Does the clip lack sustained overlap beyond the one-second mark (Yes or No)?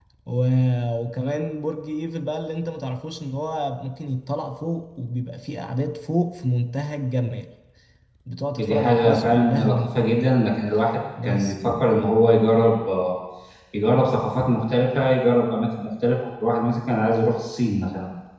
No